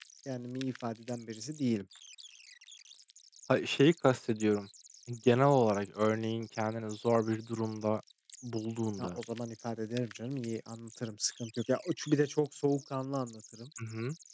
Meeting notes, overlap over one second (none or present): none